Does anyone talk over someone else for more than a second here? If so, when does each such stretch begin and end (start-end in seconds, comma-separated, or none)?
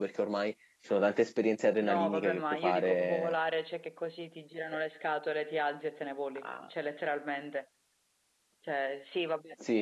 1.8-3.4